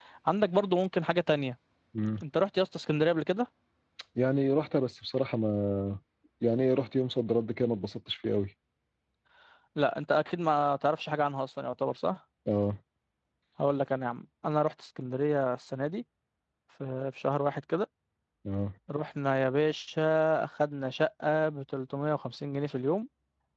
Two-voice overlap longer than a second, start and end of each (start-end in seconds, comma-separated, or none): none